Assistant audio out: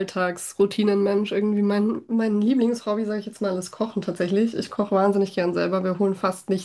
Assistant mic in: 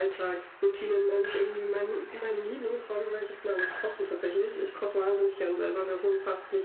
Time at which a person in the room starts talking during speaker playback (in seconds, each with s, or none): none